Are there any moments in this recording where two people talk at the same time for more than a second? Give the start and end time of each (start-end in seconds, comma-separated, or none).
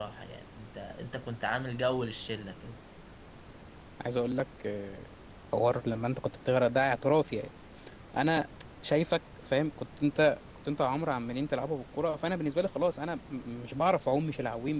none